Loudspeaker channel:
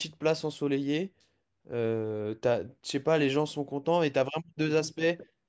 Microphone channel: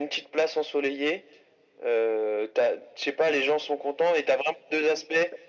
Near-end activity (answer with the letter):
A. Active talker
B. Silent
B